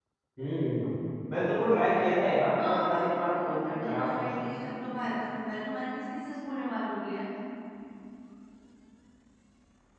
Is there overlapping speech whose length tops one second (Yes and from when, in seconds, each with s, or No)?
Yes, from 2.6 s